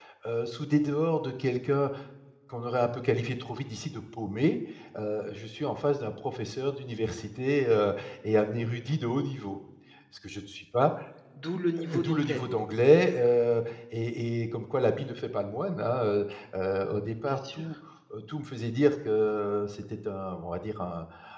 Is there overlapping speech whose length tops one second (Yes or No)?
No